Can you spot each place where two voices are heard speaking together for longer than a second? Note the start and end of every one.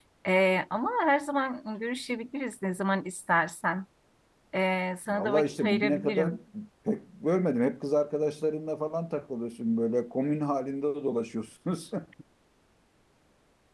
5.1-6.3

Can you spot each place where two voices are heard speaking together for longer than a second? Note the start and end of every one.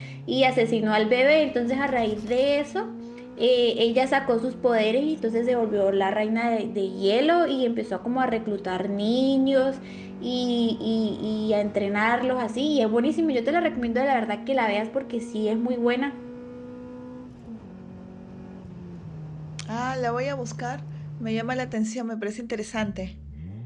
none

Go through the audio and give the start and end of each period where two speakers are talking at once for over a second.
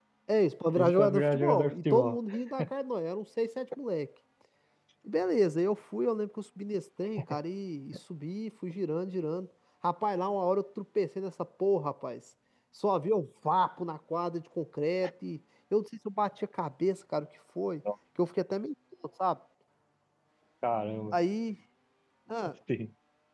0.8-2.2

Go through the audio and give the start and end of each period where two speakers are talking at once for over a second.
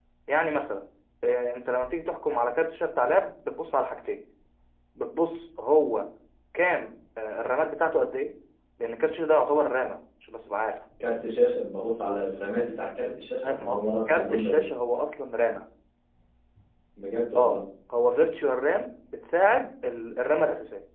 13.4-14.6

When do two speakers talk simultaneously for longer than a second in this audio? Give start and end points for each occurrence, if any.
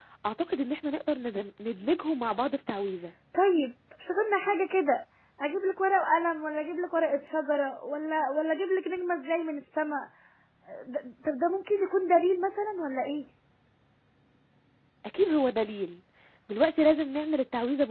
none

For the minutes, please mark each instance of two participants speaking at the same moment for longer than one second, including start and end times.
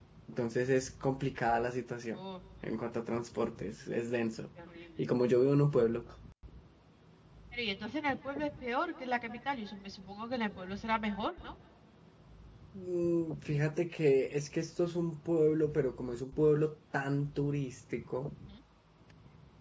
none

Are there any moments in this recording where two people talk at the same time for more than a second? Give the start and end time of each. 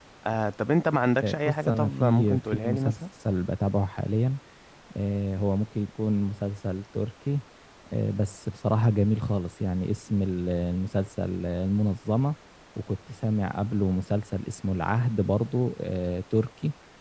1.2-3.0

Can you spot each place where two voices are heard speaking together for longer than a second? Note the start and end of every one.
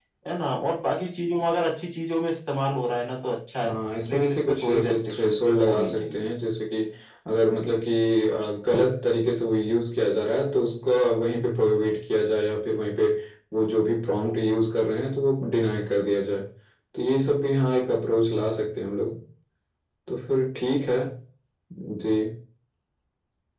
4.1-6.2

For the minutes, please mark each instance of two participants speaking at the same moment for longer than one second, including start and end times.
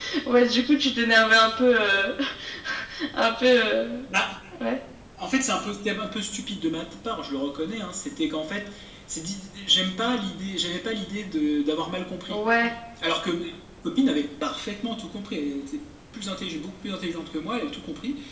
none

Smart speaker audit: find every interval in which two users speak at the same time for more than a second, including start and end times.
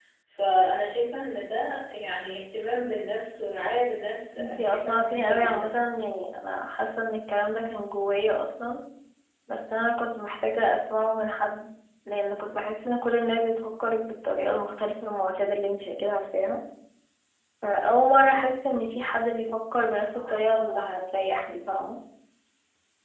4.4-5.7

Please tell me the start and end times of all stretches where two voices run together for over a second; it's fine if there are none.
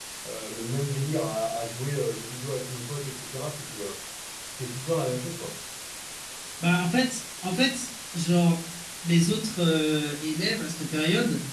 none

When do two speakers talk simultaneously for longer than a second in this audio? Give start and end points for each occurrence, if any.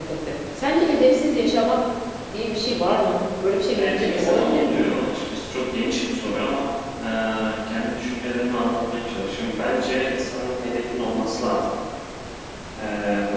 3.8-5.1

